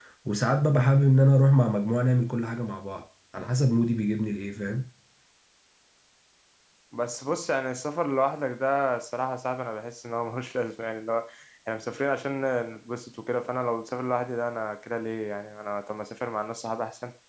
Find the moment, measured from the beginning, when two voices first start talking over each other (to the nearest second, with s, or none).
none